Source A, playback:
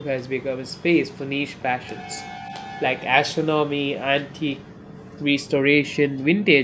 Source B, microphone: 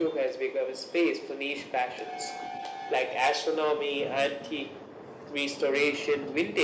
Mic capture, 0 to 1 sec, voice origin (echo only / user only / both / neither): echo only